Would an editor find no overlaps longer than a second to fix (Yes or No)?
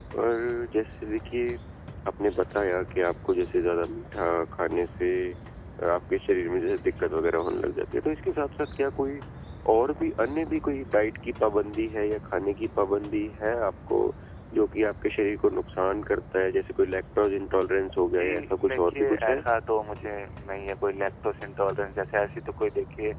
No